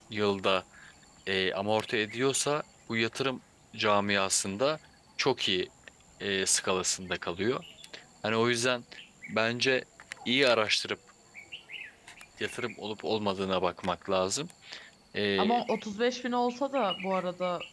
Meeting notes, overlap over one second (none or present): none